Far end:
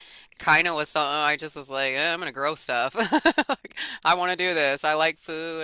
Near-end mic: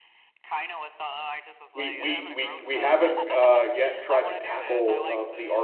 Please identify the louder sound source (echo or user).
user